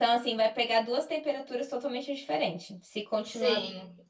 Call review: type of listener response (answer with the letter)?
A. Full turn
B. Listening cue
B